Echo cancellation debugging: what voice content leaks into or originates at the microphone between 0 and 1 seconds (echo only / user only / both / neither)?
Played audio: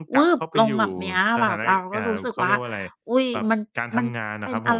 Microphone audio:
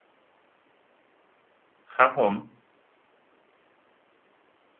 neither